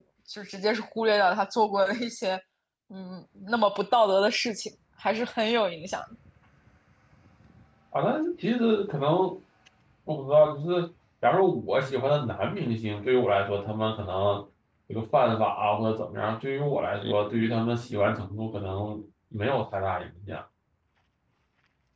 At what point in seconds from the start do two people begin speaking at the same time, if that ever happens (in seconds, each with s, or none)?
none